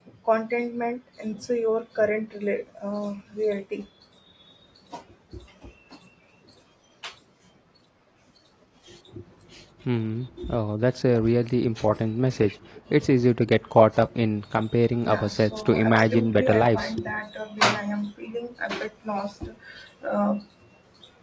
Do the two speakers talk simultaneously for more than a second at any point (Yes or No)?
Yes